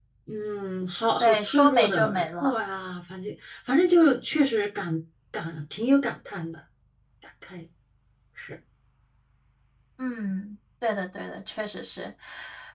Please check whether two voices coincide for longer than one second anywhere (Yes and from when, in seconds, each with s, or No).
Yes, from 1.2 s